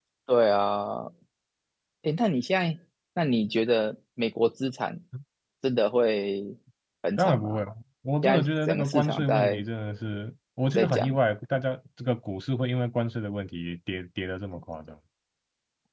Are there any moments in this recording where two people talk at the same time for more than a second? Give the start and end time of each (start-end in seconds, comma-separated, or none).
8.2-9.6